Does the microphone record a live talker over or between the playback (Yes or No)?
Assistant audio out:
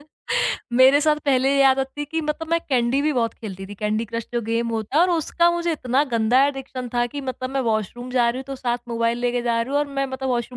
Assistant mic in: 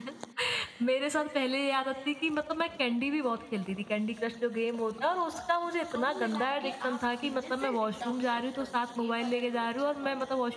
Yes